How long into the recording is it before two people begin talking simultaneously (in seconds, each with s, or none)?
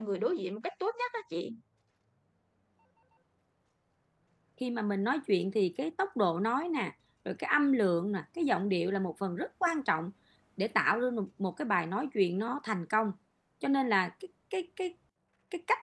none